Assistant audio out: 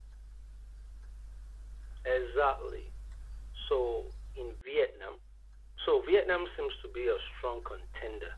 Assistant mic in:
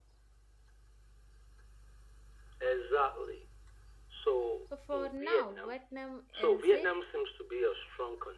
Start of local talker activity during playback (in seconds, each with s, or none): 4.8 s